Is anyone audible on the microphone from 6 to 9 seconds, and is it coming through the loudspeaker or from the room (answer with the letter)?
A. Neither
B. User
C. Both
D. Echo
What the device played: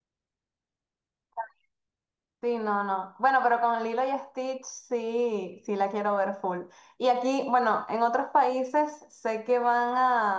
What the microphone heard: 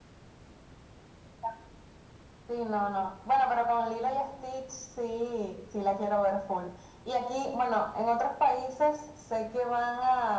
D